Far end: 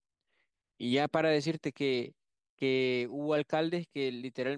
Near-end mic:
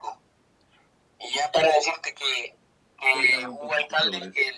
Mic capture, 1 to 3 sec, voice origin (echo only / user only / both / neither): echo only